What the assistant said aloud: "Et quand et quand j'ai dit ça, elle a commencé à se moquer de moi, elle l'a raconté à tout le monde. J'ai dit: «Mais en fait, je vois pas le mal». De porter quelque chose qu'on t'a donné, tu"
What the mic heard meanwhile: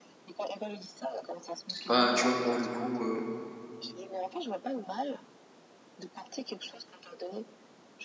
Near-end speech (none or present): present